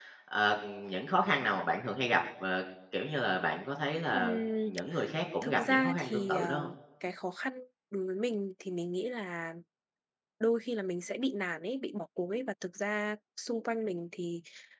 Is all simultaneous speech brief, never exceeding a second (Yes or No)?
No